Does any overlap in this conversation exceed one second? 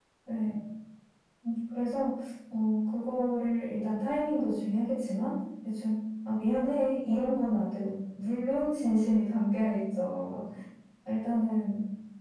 No

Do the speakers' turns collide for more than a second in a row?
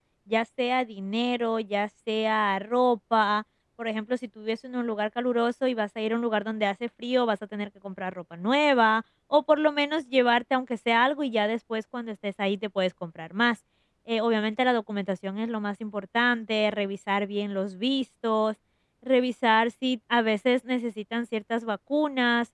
No

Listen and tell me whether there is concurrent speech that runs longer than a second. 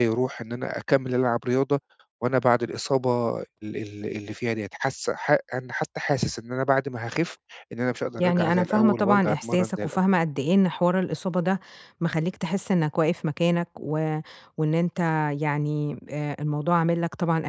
Yes, from 8.2 s

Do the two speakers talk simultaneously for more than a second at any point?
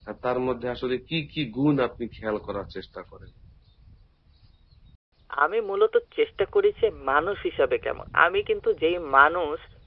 No

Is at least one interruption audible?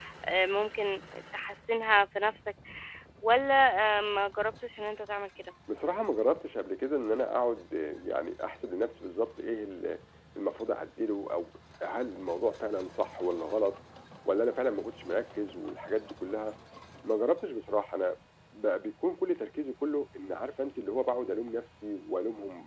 No

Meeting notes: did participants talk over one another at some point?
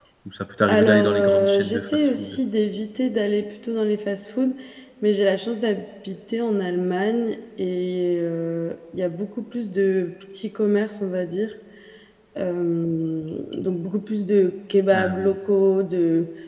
Yes, from 0.7 s

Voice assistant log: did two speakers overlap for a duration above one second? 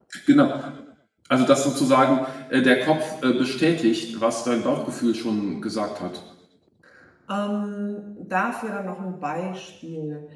No

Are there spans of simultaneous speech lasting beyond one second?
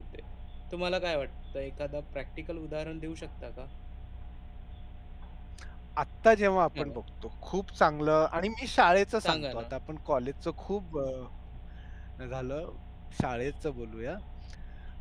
No

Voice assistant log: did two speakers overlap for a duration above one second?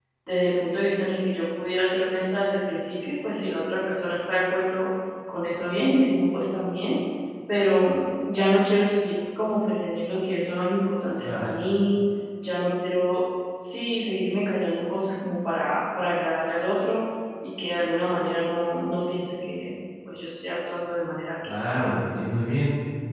No

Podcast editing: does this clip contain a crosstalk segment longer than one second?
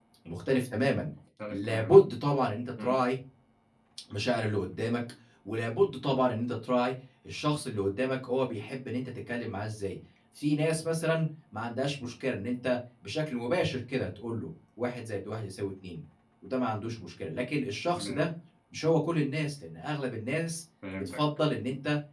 No

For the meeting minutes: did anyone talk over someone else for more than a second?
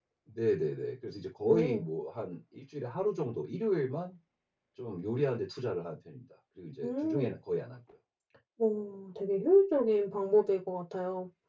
No

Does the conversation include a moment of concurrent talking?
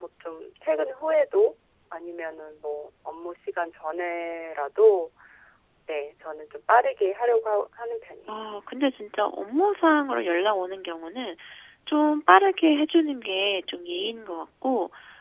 No

